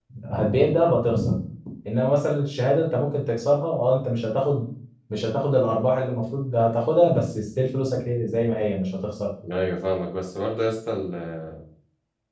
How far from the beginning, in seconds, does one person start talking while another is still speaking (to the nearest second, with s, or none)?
none